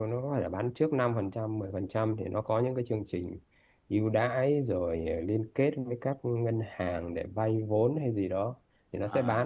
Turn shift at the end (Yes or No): No